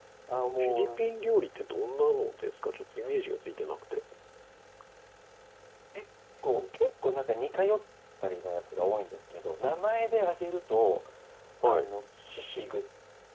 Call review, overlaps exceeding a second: none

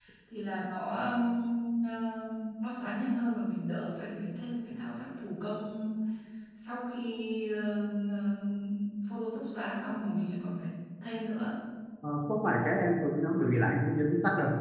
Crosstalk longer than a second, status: none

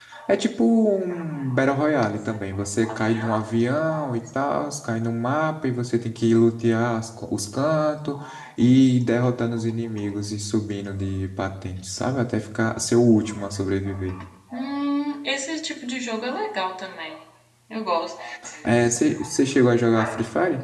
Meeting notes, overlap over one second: none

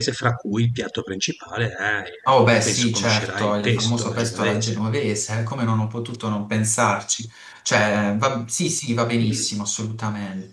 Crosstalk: present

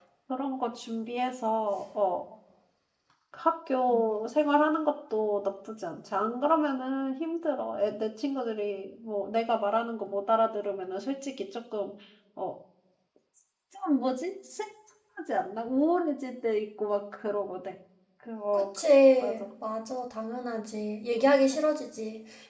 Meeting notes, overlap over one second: none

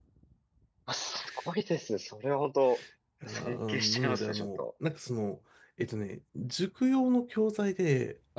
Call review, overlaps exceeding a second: present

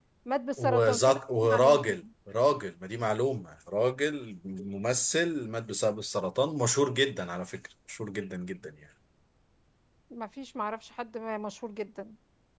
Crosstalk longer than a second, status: present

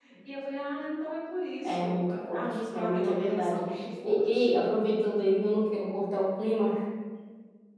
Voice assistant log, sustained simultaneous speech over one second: present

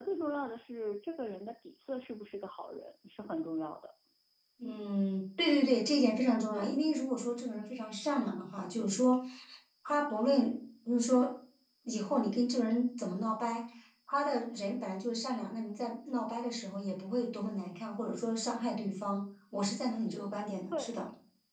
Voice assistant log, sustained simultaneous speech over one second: none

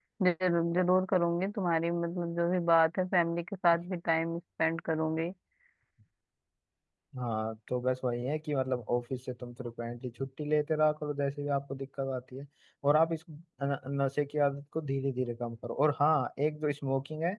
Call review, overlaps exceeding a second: none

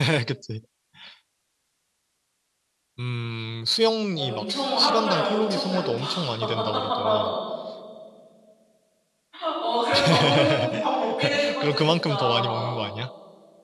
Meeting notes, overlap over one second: present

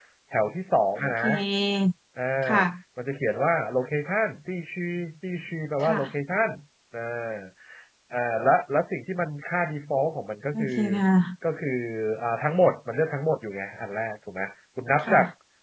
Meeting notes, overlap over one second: none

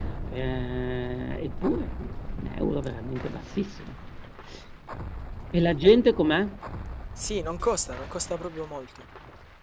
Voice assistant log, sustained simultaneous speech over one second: none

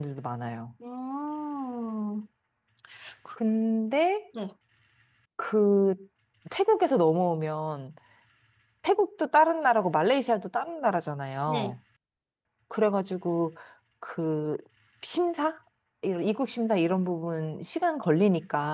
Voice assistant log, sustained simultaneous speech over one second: none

